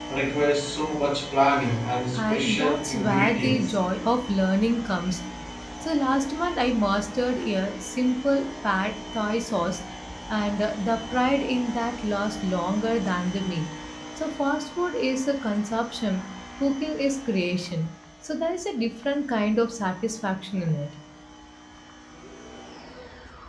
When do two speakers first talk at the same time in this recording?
2.1 s

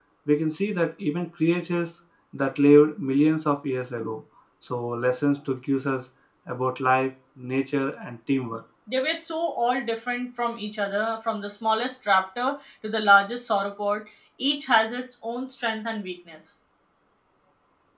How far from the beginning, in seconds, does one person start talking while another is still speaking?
none

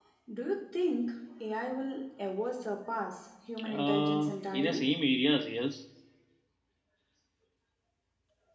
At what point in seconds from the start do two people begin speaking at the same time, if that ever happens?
3.7 s

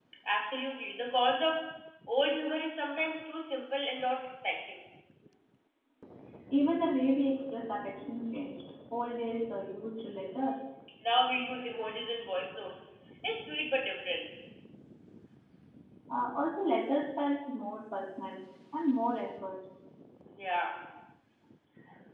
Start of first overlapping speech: none

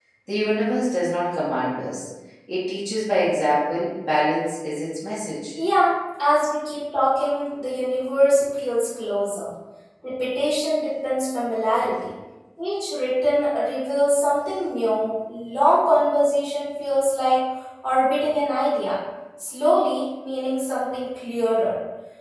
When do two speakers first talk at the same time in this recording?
none

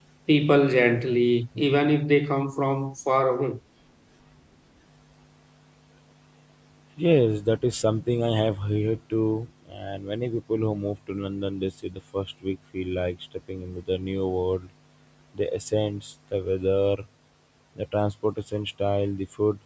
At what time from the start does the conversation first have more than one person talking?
none

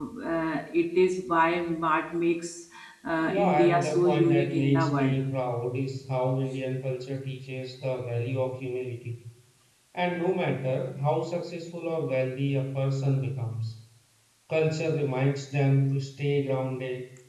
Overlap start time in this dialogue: 3.2 s

